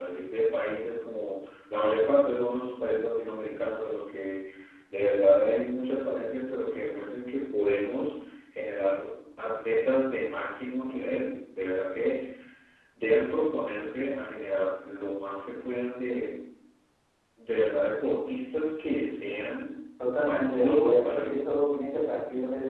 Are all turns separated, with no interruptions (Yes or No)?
No